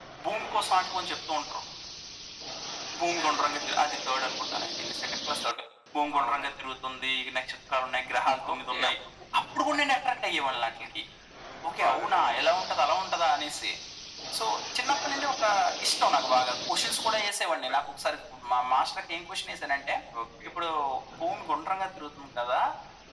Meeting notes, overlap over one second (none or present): none